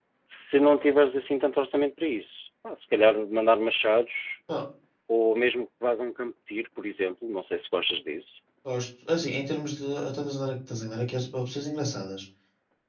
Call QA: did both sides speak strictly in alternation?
Yes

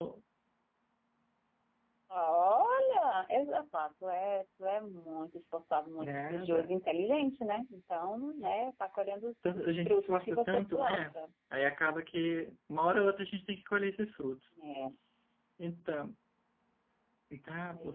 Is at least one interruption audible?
Yes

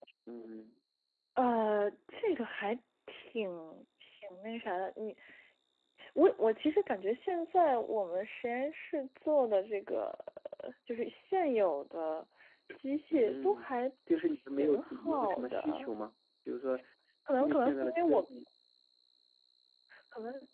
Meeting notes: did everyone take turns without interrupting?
No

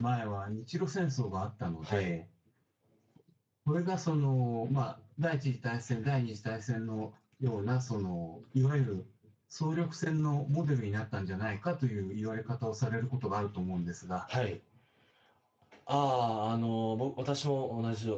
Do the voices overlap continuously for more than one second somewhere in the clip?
No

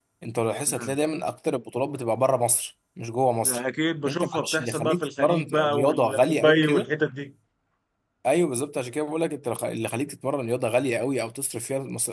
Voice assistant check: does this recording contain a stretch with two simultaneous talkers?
Yes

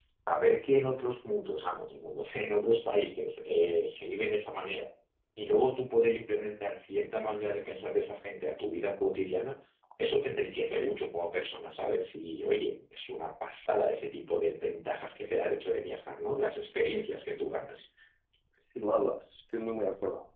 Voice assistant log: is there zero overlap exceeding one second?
Yes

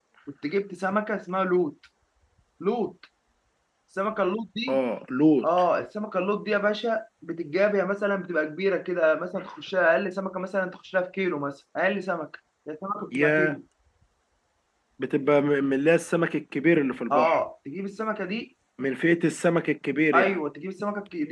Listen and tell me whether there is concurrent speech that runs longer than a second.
No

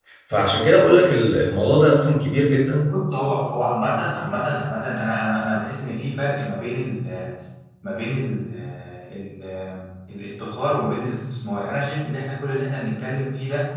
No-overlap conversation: Yes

